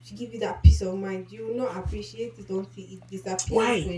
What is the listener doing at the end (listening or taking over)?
taking over